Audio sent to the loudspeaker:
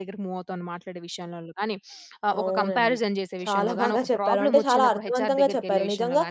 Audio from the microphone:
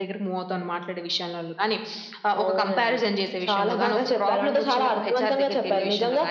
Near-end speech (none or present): none